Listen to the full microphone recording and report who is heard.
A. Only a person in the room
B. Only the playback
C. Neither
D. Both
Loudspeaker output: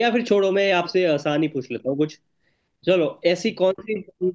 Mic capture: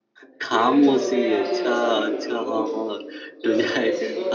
D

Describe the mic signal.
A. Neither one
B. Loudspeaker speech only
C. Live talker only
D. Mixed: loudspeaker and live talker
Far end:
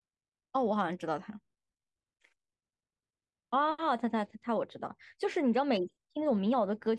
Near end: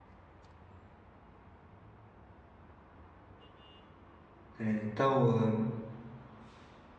C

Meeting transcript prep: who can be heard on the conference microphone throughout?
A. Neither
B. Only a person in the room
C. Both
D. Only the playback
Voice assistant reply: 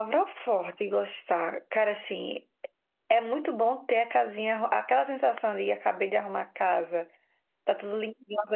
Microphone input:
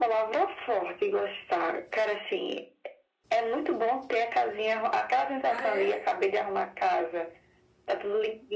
C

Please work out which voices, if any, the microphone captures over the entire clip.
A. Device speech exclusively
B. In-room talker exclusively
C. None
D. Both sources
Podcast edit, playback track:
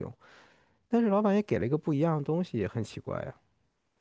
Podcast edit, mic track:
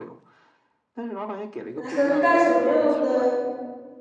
D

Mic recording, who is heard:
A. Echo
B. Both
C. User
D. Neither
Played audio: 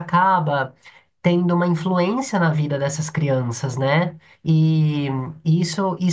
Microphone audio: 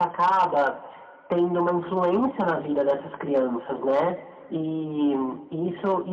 A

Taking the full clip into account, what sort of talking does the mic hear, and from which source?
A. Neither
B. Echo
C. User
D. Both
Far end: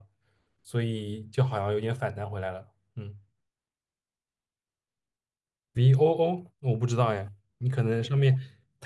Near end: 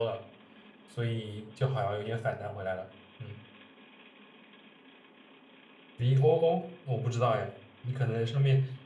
B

